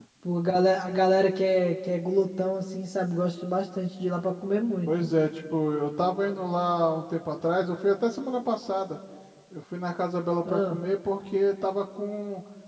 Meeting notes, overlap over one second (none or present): none